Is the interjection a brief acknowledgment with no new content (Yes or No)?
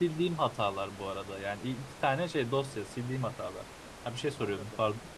No